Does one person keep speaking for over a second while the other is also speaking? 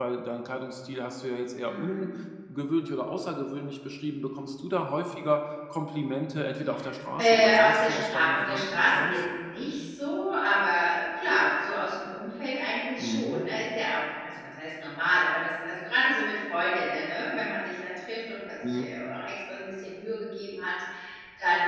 Yes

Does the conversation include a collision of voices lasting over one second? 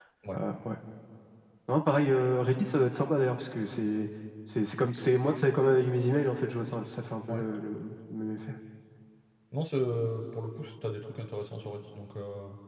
No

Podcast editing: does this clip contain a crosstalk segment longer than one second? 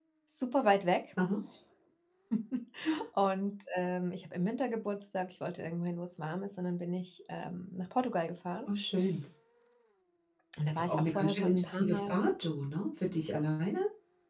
Yes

